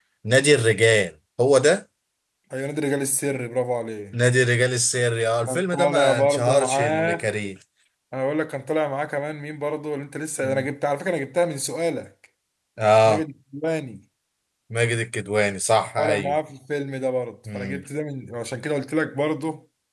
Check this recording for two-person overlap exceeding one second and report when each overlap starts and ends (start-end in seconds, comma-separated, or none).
5.4-7.2